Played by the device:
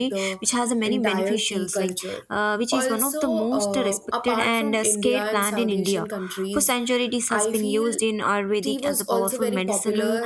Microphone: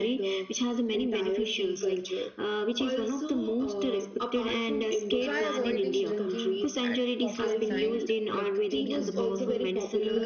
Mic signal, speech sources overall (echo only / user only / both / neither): both